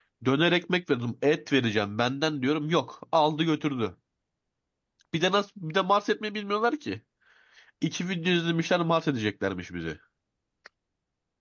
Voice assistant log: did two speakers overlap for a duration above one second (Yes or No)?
No